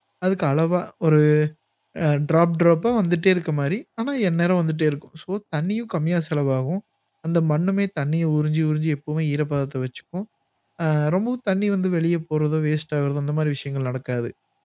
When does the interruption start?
none

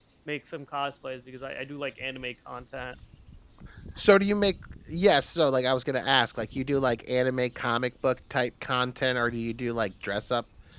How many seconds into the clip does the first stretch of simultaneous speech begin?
none

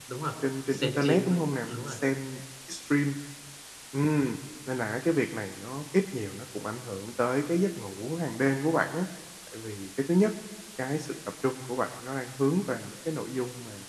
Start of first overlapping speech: 0.7 s

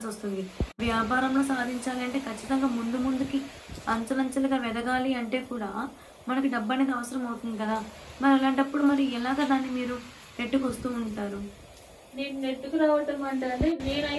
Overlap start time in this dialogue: none

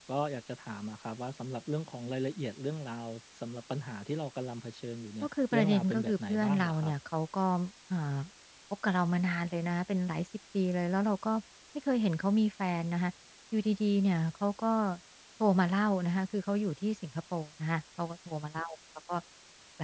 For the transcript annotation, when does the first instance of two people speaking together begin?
5.2 s

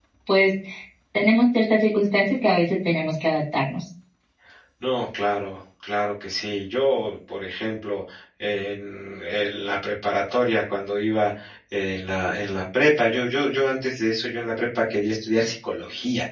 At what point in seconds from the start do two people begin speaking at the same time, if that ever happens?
none

